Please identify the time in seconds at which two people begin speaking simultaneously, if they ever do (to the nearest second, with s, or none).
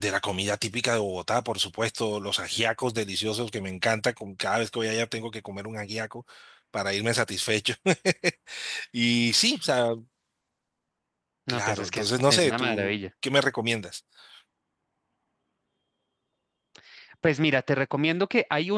11 s